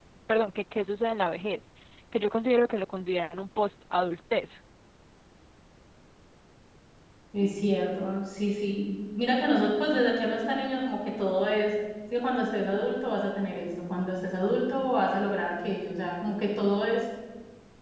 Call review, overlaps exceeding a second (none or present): none